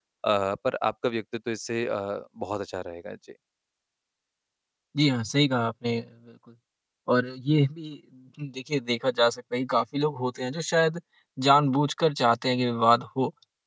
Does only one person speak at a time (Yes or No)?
Yes